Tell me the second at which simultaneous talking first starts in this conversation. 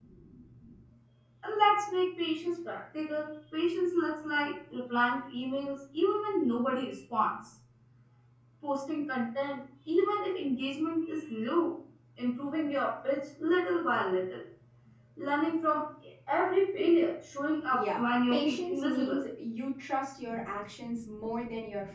17.7 s

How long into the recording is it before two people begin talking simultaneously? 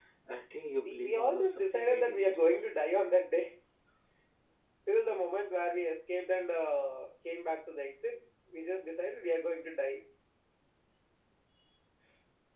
0.8 s

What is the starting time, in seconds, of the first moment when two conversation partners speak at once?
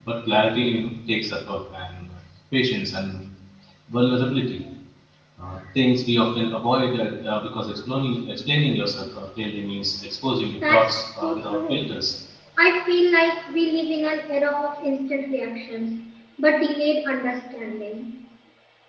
10.6 s

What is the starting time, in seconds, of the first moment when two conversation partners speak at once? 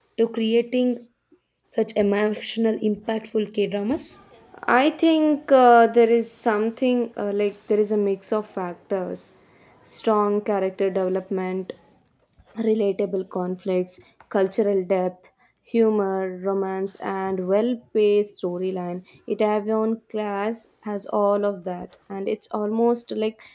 none

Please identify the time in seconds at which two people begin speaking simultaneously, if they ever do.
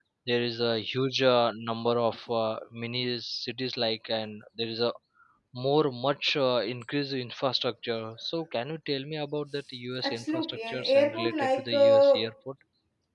10.0 s

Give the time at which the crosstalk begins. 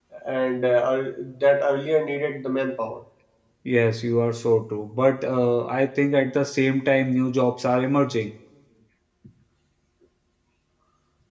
none

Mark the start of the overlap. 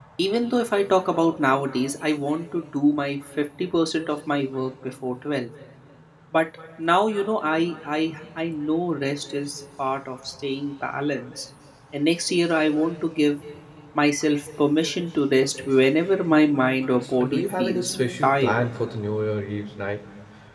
16.9 s

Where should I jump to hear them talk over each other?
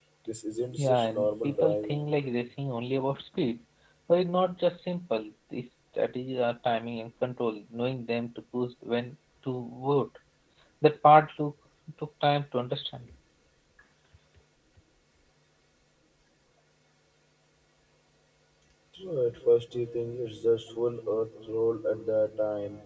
0.8 s

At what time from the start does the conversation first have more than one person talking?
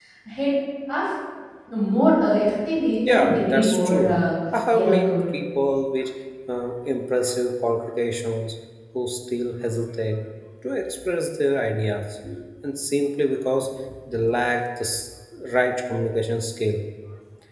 3.0 s

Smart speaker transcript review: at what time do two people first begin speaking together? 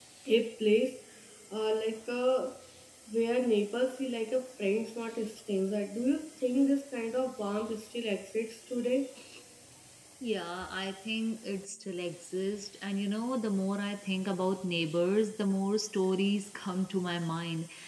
none

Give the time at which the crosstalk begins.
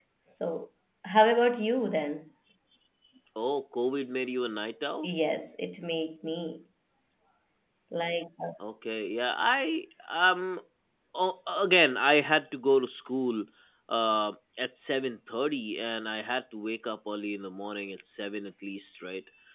none

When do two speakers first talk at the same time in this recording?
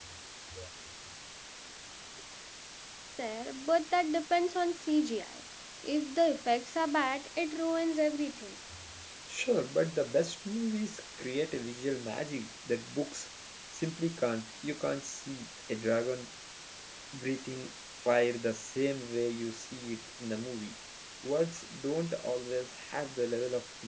none

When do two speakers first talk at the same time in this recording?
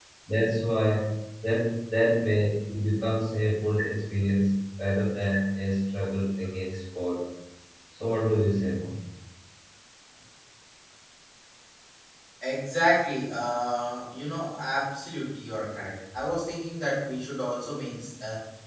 none

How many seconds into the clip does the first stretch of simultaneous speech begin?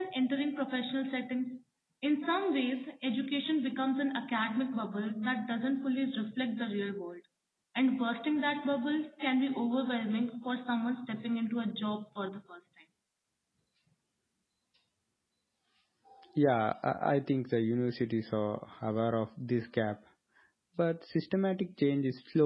none

